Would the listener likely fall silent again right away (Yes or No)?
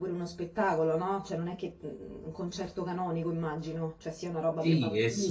No